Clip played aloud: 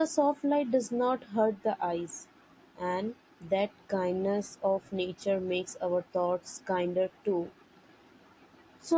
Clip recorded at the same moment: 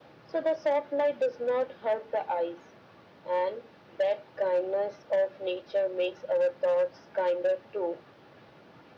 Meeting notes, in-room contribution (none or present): none